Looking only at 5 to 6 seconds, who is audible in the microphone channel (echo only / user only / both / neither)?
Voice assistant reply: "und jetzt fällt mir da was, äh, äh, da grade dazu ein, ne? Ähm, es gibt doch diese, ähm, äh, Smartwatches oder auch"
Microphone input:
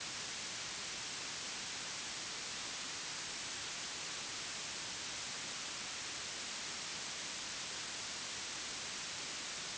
neither